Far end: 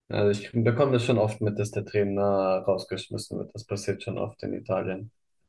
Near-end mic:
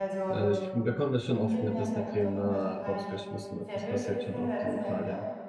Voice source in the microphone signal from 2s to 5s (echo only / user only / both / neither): both